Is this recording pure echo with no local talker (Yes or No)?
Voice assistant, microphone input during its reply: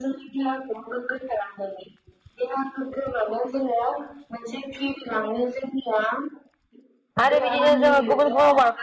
No